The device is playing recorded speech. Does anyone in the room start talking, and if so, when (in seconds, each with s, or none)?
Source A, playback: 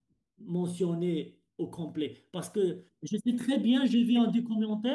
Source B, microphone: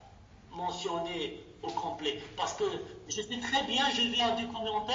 none